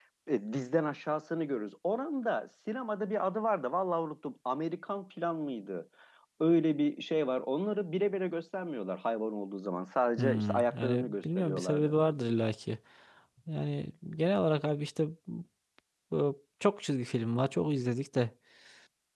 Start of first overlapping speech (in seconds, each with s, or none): 10.2 s